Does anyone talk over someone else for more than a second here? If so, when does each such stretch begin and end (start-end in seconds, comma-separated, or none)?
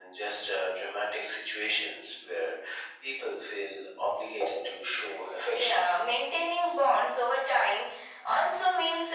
none